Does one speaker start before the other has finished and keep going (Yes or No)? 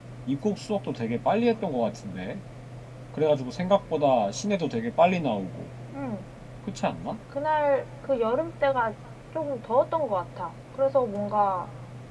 No